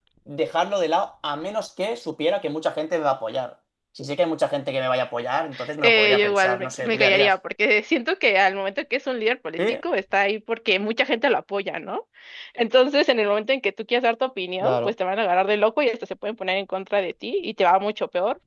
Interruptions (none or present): present